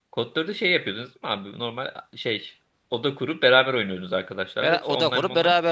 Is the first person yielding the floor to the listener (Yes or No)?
Yes